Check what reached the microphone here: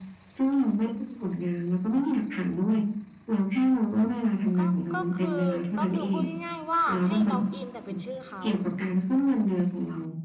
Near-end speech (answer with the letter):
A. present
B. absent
A